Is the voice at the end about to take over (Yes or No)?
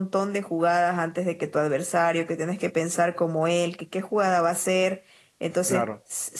No